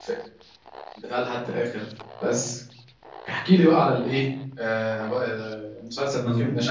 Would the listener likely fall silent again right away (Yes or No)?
No